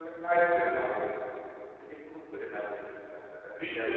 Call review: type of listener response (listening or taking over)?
taking over